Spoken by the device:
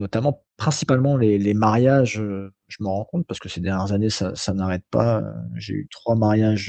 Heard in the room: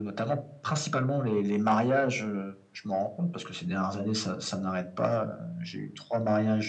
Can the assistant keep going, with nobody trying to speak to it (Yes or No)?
Yes